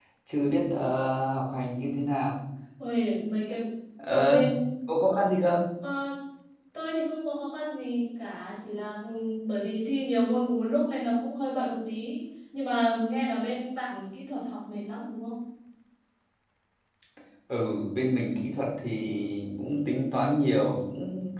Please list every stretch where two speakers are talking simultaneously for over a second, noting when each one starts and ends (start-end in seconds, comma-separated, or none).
none